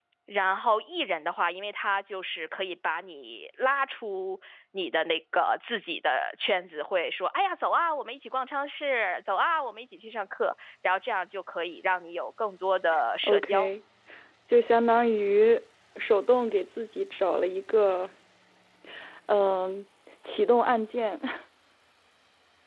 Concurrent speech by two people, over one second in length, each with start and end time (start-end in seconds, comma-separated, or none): none